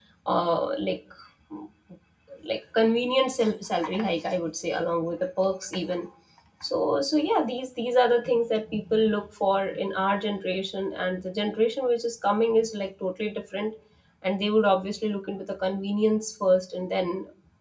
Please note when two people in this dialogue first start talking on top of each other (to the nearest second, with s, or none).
none